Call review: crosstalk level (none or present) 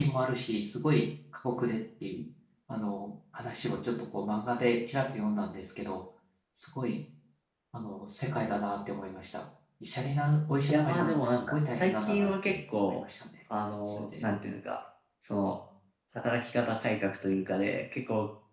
present